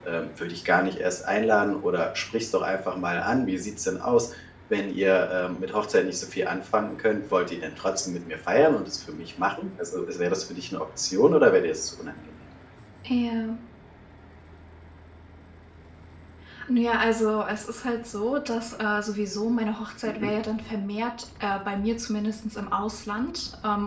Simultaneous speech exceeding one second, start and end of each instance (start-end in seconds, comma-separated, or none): none